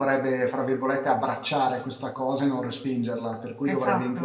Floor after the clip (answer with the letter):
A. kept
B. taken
A